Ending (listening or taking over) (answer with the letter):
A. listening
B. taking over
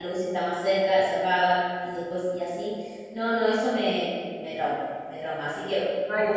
A